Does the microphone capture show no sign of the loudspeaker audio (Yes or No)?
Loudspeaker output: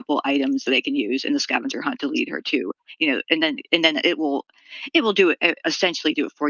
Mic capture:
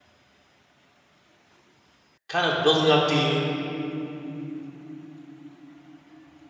Yes